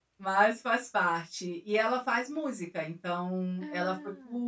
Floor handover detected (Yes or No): No